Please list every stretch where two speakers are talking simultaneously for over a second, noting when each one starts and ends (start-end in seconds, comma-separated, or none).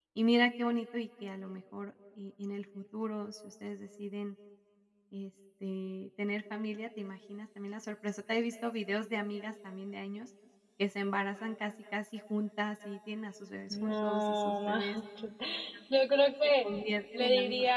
13.7-15.0